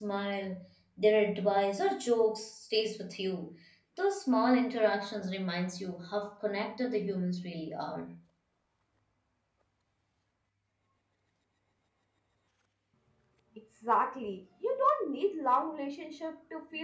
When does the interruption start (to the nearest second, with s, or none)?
none